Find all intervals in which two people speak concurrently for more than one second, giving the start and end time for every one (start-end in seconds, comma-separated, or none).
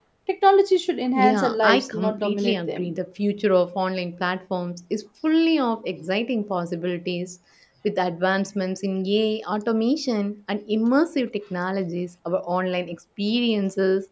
1.1-2.9